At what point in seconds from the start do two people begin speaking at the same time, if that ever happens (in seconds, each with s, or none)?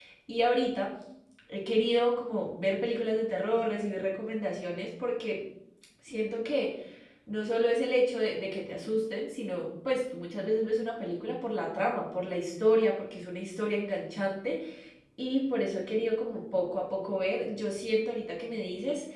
none